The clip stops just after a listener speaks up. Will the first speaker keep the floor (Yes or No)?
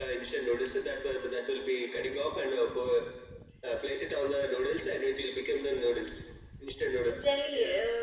No